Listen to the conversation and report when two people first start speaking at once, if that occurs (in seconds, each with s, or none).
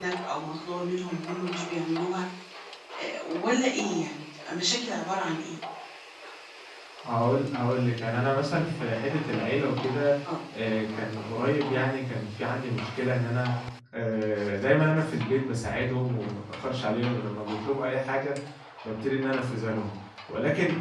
none